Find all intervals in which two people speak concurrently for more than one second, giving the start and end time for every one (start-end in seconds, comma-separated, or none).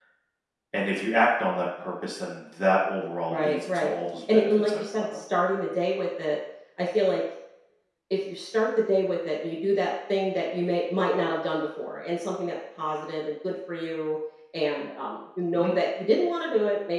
3.3-5.0